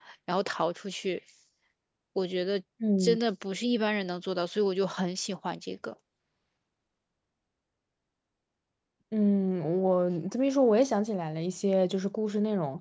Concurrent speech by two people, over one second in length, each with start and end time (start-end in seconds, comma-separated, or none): none